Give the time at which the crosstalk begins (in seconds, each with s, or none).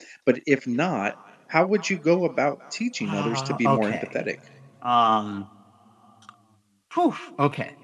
3.0 s